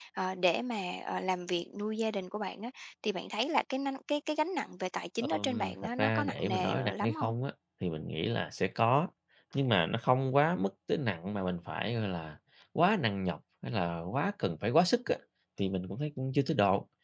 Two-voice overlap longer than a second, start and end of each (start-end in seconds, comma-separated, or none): 5.2-7.3